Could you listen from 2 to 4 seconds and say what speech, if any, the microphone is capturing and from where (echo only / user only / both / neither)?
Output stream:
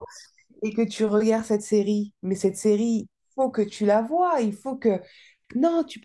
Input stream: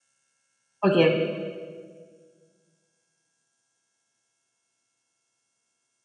neither